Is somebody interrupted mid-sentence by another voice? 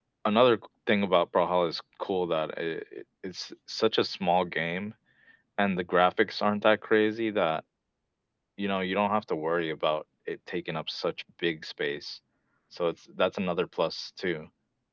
No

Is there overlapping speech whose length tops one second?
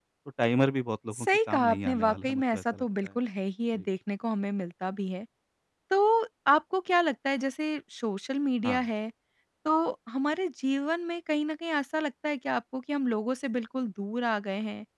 Yes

